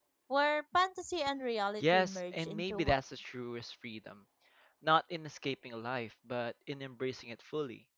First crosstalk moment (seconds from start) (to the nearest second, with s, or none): 2 s